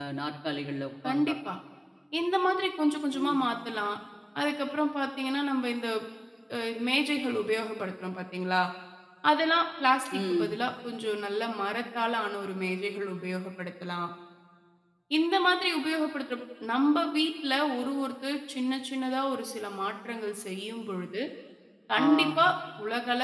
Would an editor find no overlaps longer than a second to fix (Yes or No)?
Yes